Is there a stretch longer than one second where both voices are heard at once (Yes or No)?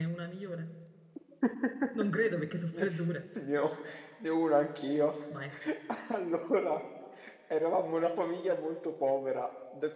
No